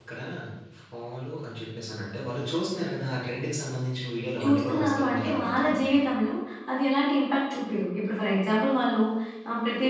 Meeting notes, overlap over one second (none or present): present